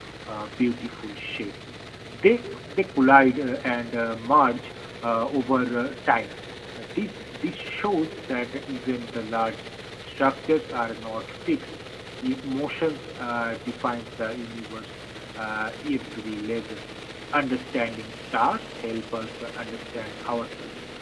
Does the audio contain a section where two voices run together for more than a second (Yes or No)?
No